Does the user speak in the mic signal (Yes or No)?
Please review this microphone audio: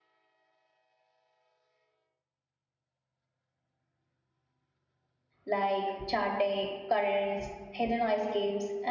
Yes